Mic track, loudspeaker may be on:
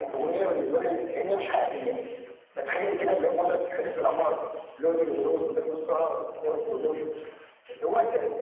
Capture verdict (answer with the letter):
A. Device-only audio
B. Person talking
A